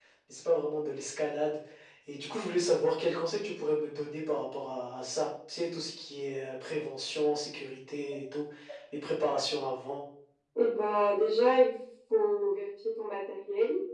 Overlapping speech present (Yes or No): No